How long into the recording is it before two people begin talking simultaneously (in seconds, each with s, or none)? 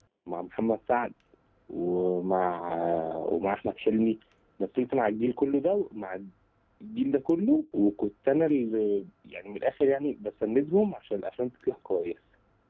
none